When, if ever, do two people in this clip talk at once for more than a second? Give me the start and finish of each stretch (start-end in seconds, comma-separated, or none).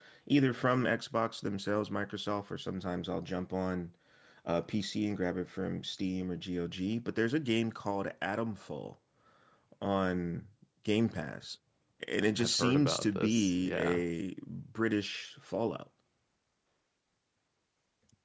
12.4-14.0